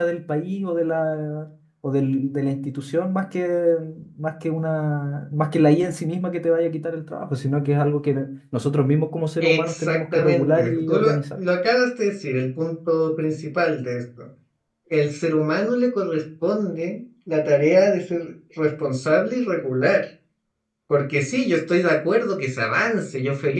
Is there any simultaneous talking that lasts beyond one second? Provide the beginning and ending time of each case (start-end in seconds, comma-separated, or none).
9.4-11.1